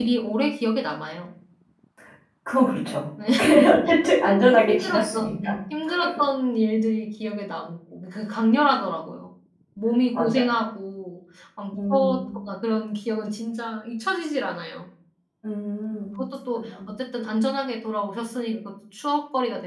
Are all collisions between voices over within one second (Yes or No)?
No